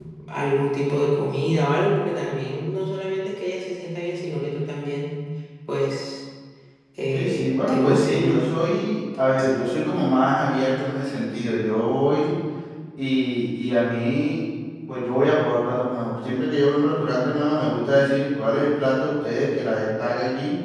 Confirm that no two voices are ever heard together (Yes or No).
No